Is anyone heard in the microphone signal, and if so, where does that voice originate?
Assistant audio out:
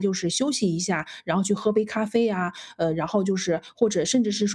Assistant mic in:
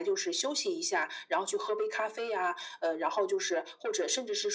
echo only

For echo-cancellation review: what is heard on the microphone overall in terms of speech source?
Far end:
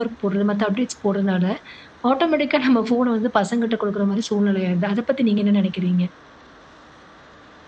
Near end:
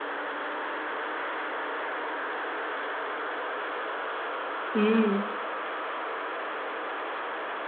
user only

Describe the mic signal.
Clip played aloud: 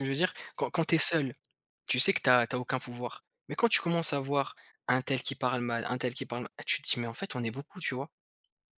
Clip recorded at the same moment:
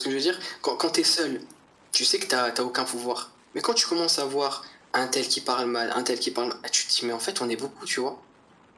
echo only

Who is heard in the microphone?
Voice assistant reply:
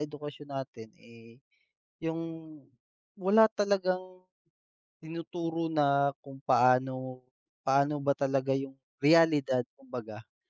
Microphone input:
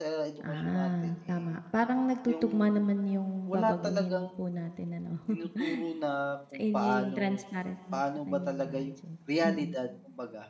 both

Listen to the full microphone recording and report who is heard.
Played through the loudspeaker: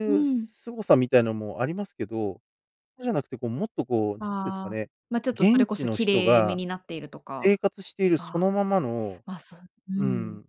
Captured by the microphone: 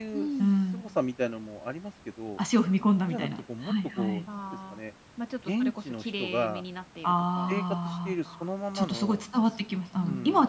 both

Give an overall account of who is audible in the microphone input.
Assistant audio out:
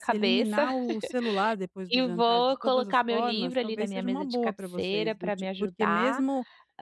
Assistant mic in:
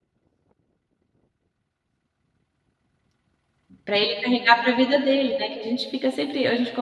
user only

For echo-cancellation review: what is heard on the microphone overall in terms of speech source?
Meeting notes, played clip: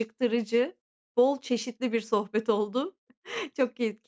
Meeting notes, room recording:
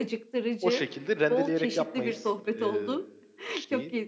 both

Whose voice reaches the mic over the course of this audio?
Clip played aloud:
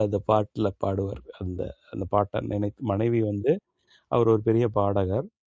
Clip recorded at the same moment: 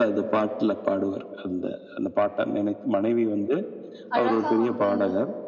both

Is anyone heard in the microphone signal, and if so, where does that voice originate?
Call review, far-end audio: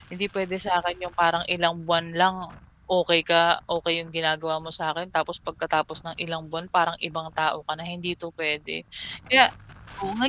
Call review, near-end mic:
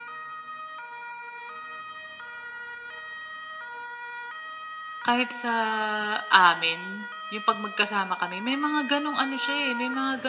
user only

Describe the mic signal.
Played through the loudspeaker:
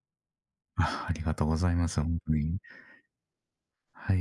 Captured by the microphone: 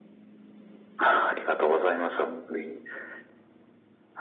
echo only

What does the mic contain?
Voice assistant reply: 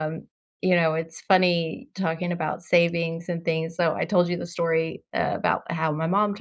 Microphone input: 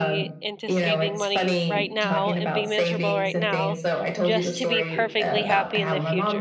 both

